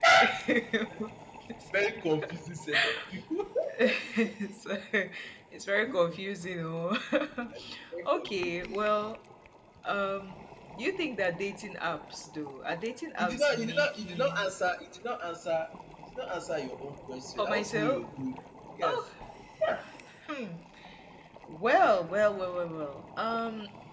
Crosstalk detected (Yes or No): Yes